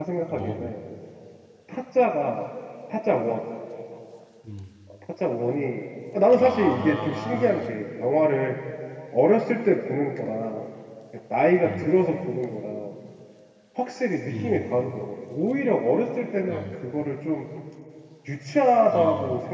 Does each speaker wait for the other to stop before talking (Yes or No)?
No